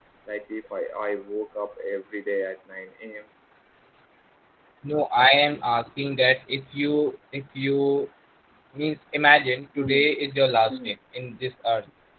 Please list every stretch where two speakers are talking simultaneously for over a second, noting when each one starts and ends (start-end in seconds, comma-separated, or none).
none